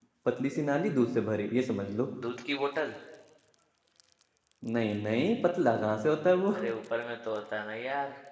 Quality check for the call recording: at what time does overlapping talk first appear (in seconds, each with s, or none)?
none